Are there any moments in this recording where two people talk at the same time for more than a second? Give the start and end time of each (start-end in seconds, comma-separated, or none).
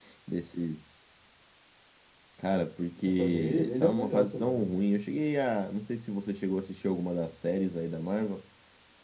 3.0-4.7